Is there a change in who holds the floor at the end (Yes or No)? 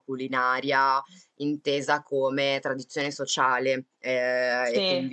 No